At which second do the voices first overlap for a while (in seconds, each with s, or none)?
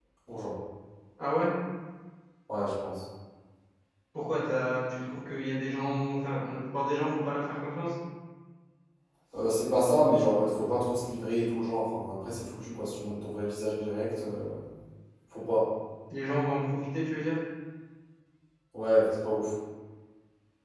none